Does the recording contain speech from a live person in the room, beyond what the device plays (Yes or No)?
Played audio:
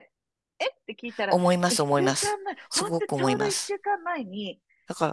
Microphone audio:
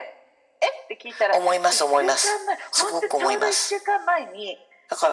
No